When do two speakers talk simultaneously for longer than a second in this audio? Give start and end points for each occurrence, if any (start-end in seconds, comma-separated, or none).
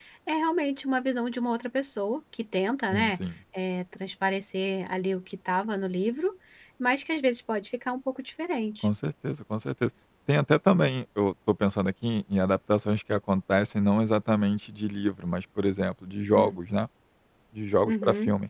none